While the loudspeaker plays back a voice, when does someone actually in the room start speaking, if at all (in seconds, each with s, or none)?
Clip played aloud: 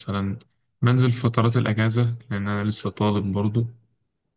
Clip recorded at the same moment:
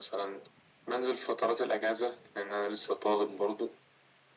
none